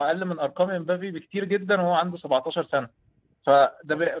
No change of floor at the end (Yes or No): Yes